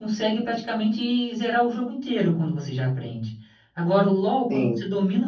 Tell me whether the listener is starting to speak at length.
No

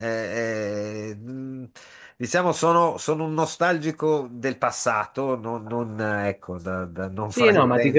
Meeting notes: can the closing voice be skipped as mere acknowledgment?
No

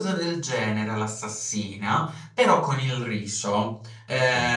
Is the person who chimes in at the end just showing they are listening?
Yes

